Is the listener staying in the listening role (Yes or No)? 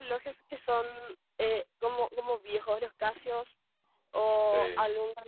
Yes